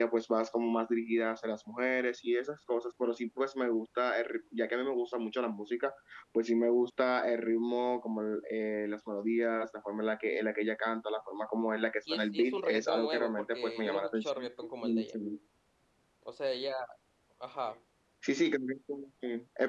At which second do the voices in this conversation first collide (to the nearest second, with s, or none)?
12 s